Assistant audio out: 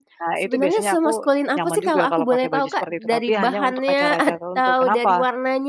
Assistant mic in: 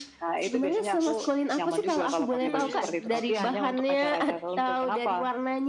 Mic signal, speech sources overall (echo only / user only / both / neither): both